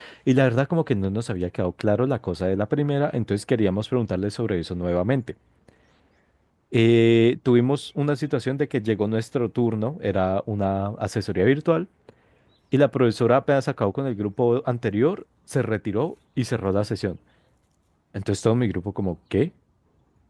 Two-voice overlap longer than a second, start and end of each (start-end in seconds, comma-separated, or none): none